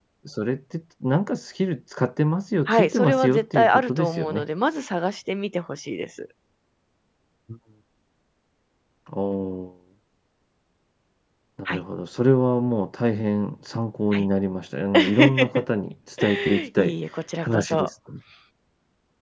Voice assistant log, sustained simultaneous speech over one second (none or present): present